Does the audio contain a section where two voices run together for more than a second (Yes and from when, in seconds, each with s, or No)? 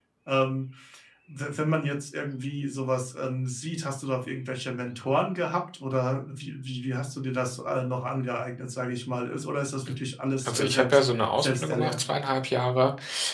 Yes, from 10.4 s